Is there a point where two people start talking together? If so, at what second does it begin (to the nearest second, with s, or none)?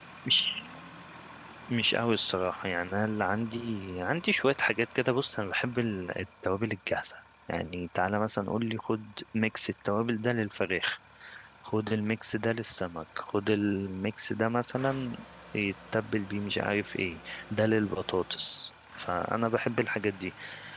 none